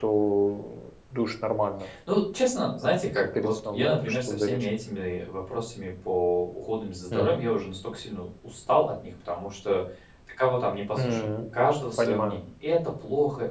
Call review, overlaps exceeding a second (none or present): present